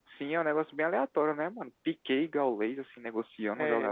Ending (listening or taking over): taking over